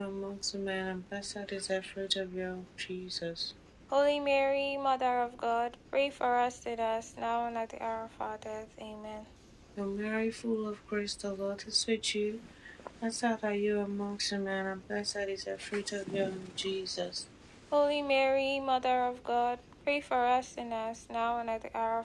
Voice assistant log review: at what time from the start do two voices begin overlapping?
none

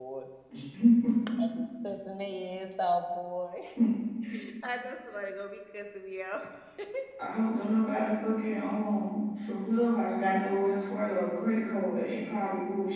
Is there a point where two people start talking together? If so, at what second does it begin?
none

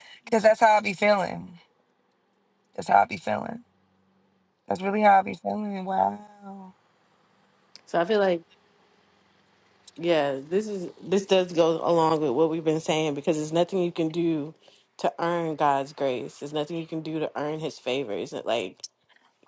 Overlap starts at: none

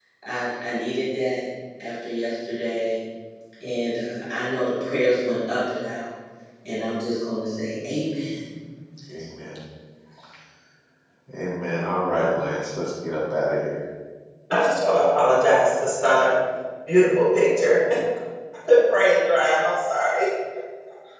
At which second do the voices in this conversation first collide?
none

